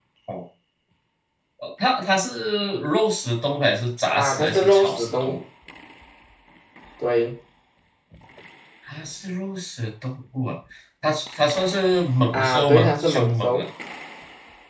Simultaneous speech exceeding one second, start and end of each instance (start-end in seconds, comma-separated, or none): 4.1-5.4, 12.3-13.7